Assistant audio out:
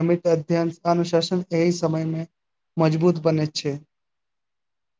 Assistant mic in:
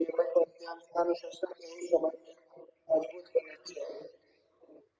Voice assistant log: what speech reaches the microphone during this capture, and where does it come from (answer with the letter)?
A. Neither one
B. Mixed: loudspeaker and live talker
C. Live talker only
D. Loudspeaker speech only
D